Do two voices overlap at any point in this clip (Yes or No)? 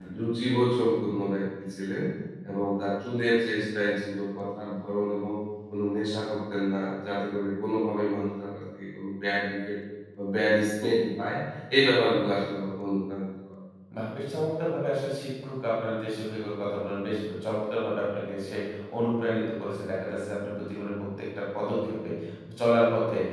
No